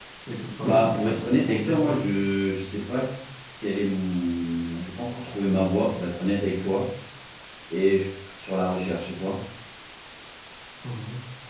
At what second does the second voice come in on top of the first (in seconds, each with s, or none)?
0.6 s